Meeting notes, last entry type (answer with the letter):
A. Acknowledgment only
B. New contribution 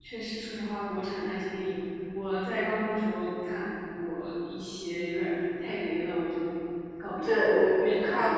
B